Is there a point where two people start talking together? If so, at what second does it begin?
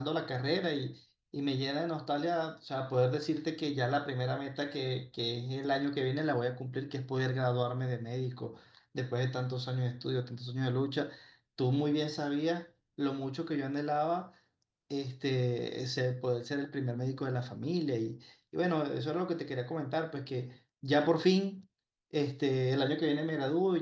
none

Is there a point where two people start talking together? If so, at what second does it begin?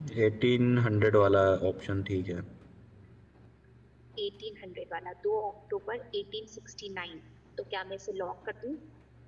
none

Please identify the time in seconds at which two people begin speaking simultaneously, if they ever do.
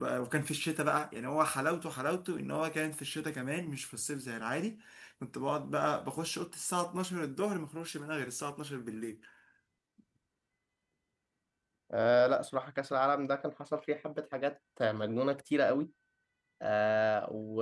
none

